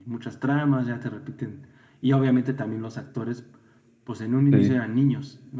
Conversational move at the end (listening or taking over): listening